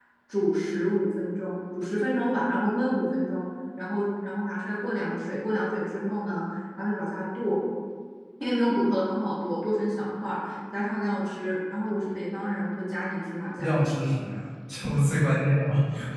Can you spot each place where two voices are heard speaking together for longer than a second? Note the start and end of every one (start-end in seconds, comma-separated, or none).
none